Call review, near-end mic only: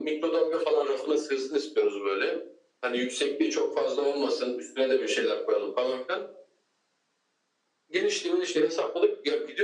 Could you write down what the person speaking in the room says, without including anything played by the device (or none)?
none